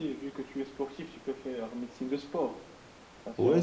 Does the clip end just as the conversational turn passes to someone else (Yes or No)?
Yes